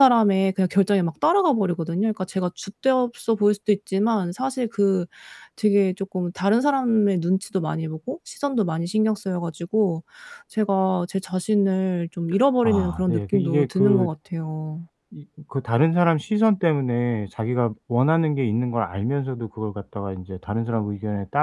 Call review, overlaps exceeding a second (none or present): present